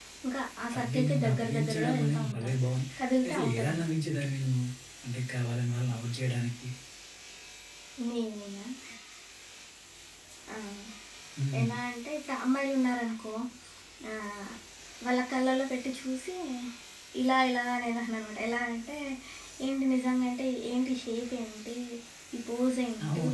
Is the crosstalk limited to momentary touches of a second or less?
No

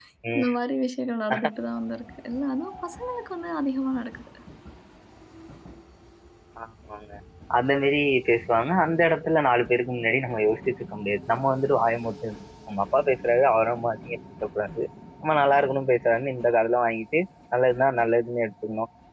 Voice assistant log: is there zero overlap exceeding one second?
Yes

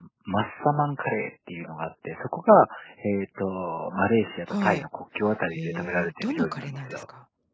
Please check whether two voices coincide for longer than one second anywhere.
Yes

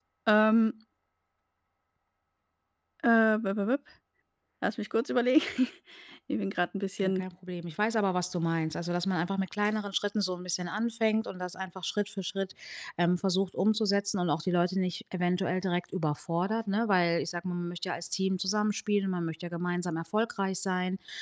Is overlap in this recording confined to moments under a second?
Yes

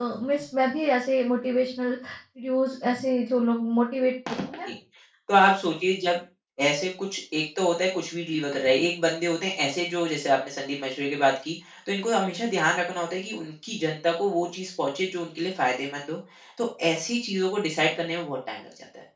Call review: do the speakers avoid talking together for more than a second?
Yes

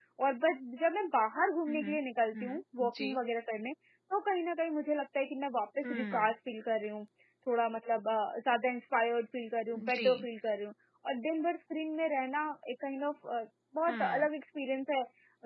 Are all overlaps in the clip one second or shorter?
Yes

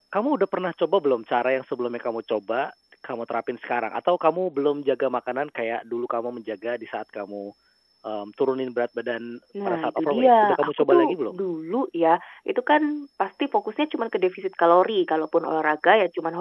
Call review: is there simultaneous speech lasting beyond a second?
Yes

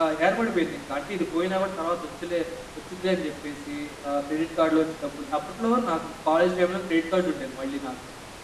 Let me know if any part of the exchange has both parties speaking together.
No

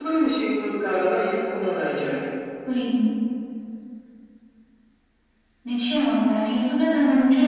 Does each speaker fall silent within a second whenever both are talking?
Yes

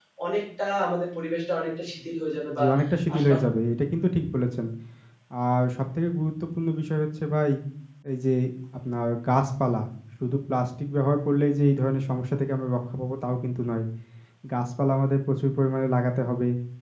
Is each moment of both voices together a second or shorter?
Yes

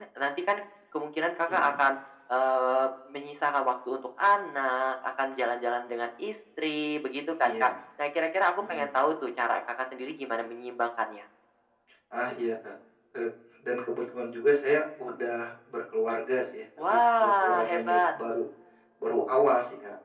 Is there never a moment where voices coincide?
No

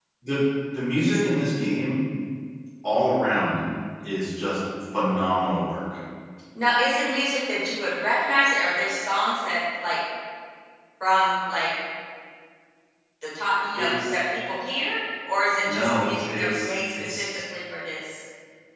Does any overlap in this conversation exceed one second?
Yes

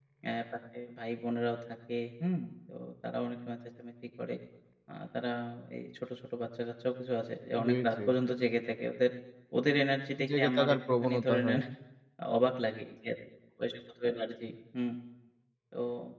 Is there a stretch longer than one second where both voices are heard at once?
Yes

